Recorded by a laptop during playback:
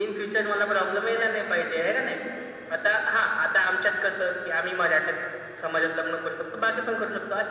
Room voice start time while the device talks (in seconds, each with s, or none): none